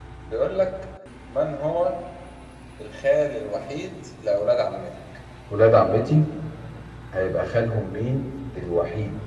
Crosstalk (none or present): none